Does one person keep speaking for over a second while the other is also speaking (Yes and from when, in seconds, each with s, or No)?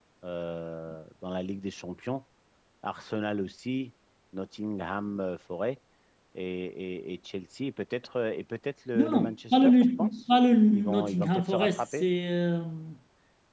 Yes, from 9.0 s